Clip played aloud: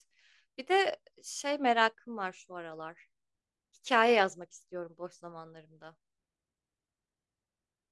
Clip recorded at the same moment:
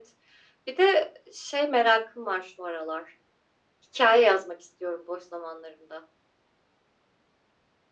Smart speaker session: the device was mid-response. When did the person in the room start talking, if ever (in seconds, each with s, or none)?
none